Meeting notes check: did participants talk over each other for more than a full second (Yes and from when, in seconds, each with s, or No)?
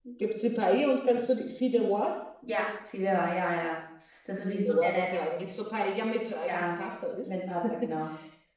No